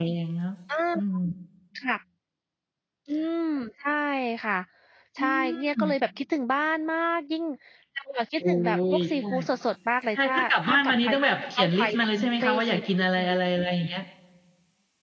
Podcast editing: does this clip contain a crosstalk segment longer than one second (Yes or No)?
Yes